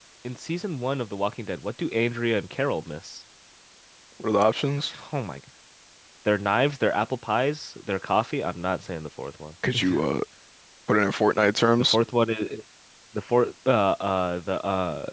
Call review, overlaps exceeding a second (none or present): none